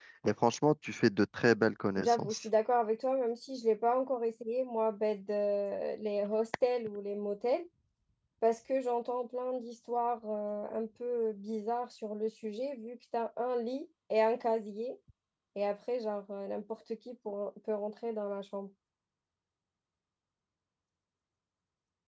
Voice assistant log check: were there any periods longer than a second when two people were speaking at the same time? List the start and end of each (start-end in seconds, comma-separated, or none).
none